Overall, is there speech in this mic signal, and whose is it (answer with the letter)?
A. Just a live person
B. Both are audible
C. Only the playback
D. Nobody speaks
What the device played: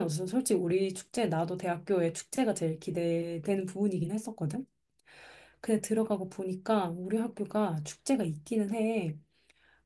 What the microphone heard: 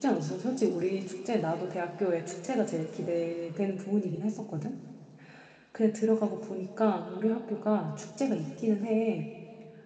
C